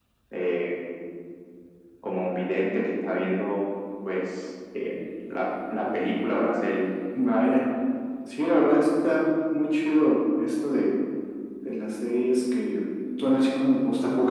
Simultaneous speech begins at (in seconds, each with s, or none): none